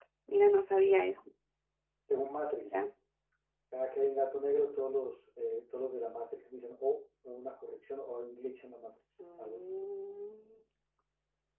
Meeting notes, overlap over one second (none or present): none